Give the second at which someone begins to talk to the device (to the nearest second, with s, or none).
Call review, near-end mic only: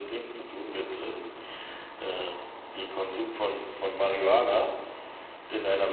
none